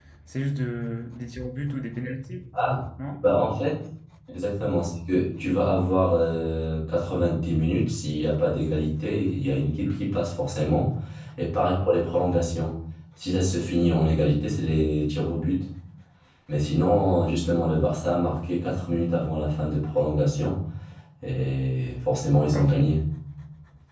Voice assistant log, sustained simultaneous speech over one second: none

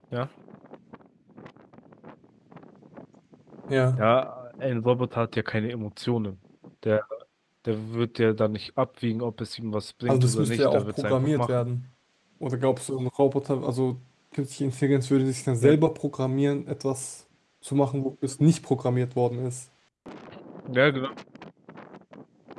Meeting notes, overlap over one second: present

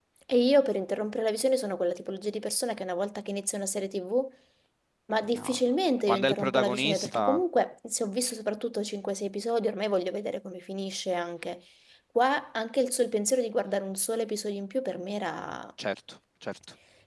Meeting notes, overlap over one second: present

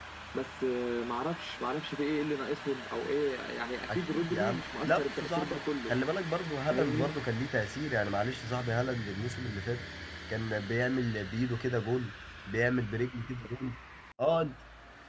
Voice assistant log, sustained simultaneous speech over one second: present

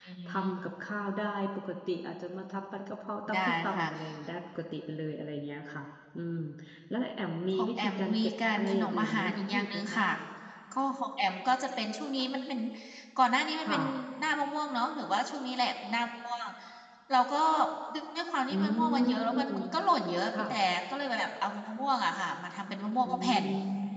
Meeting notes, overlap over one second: present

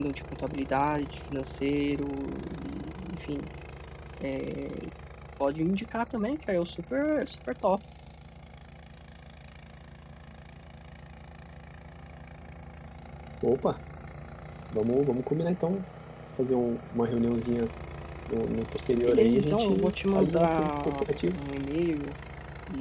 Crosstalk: present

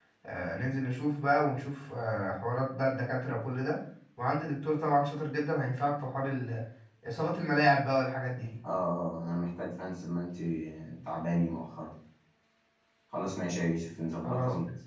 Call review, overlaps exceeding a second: none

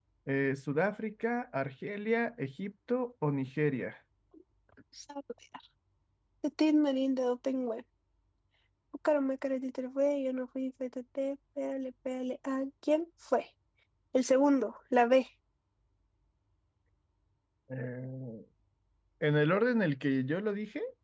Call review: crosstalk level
none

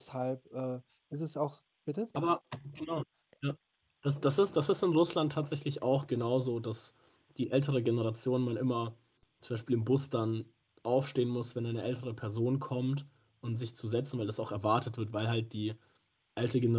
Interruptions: none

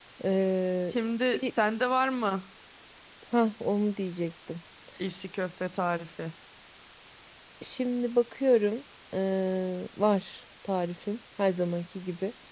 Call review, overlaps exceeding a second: none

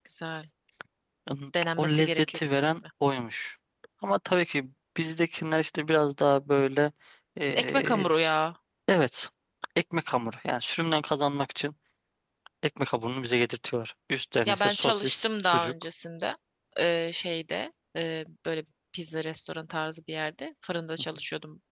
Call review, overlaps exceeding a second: present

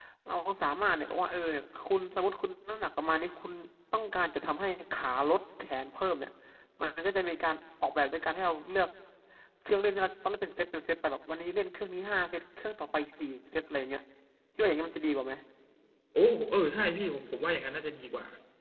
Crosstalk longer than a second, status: none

